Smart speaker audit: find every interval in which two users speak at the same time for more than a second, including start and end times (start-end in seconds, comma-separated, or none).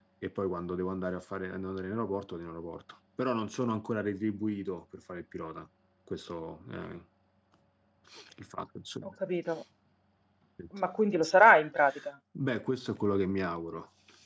none